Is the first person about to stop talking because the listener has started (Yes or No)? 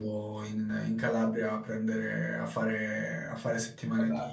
No